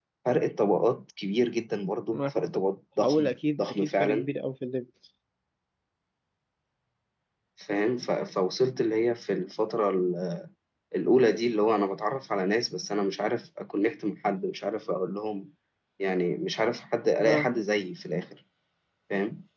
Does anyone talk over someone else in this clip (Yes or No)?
Yes